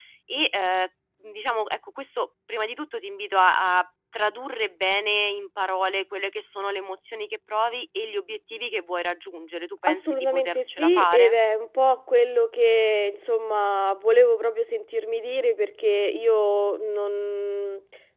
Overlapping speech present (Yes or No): Yes